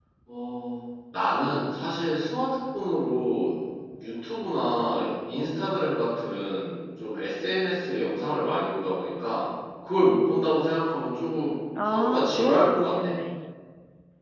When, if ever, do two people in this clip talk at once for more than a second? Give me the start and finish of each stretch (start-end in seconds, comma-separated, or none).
11.8-13.2